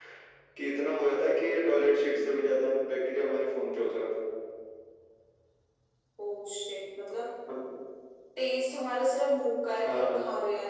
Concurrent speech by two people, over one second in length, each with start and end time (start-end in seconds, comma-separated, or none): none